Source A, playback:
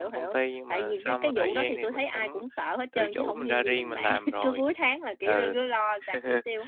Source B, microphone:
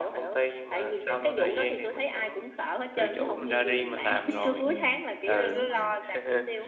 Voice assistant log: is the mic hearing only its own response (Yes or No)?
No